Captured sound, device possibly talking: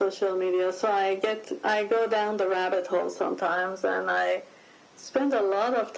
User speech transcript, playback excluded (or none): none